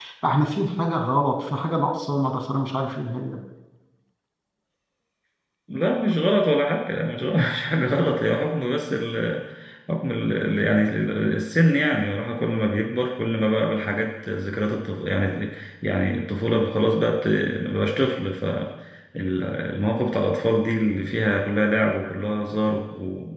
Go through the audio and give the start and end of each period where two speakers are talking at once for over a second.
none

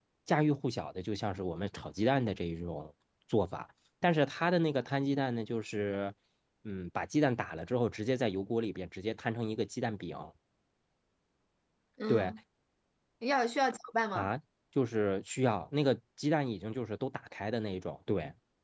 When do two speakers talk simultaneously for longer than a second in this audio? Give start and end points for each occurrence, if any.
none

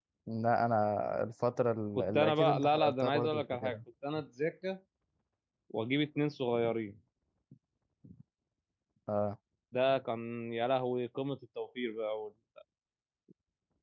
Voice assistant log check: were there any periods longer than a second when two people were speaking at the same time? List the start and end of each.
1.9-3.8

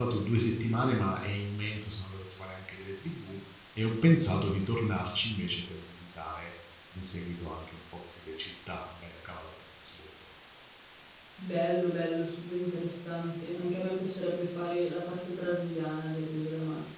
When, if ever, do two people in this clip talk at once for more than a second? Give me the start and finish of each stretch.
none

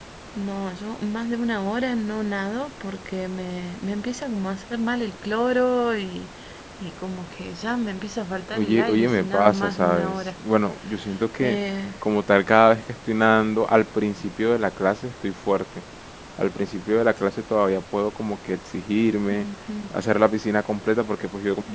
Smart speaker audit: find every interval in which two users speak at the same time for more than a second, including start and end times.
8.5-10.2

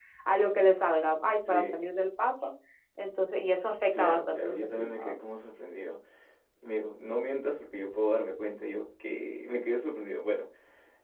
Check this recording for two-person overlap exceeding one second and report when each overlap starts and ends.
3.9-5.1

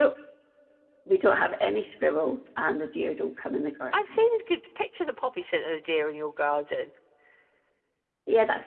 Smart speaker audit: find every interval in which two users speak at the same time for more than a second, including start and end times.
none

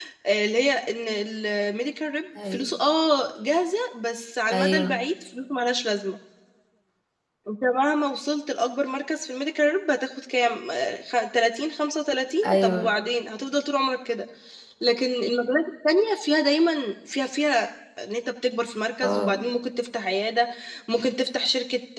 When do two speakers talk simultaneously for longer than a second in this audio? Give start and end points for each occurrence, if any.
none

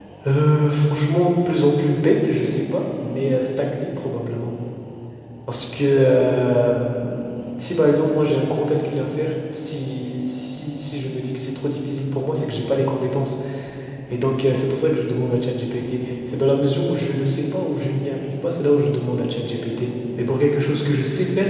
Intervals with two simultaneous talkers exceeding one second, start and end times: none

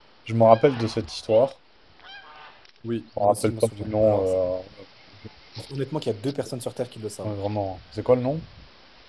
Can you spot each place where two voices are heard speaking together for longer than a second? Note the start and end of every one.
3.2-4.4

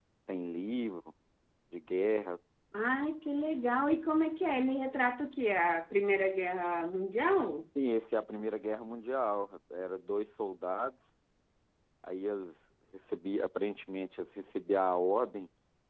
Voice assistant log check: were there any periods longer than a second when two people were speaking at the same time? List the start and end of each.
none

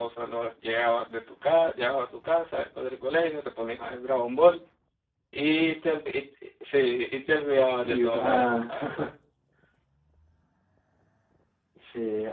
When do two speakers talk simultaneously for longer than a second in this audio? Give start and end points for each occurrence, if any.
7.8-9.1

